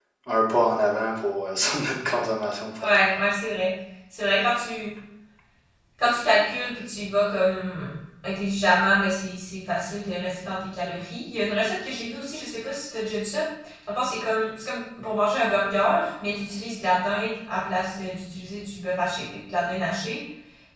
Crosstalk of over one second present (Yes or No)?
No